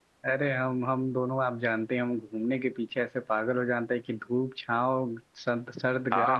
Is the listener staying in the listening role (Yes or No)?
No